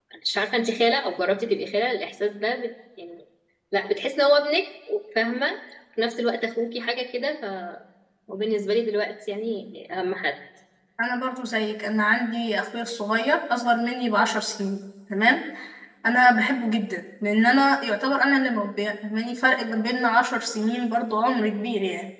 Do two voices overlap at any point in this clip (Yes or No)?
No